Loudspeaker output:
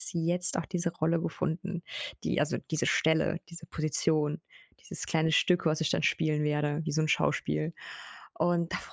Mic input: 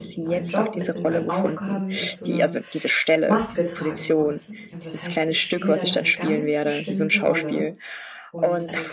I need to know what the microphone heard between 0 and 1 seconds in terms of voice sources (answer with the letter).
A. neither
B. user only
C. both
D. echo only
C